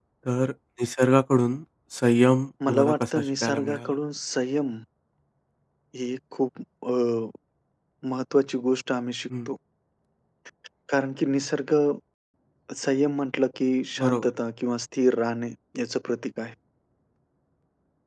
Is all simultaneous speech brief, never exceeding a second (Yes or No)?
No